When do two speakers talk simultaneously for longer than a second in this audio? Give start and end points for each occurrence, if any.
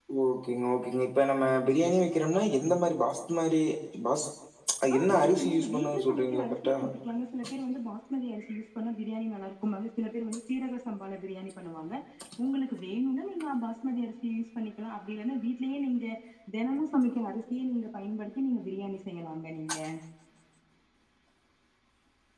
4.9-6.7

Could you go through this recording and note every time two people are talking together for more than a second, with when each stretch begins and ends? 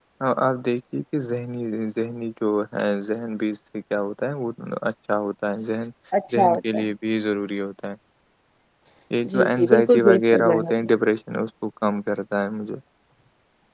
9.3-10.9

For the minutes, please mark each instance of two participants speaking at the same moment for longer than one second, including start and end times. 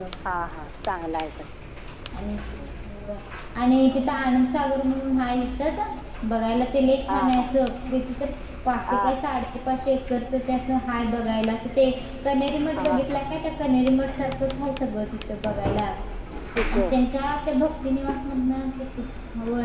none

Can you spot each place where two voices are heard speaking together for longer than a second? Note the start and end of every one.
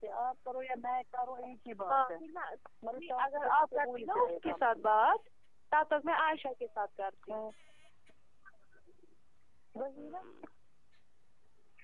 2.9-4.9

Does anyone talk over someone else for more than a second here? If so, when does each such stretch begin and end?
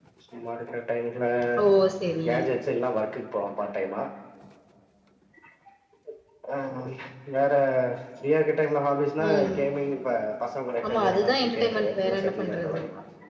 10.8-12.8

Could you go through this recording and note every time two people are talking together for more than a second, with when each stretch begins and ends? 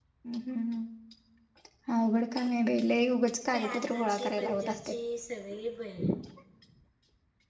3.5-4.9

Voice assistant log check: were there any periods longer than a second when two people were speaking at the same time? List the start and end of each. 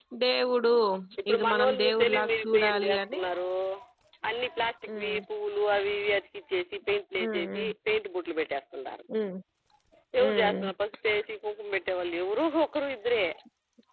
1.3-3.2

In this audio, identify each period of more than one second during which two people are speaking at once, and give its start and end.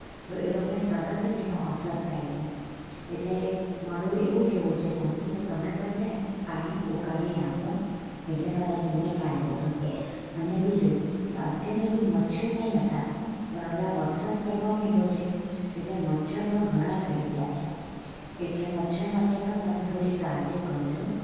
none

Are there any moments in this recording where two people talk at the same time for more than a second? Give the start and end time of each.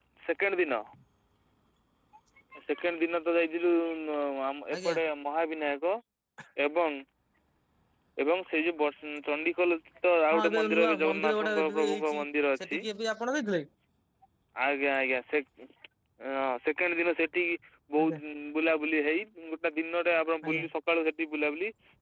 10.3-12.2

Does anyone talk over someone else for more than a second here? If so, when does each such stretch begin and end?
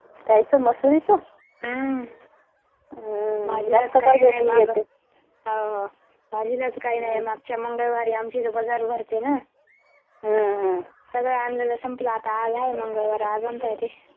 3.5-4.7

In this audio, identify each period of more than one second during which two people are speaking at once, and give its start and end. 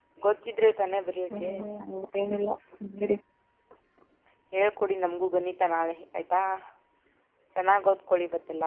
none

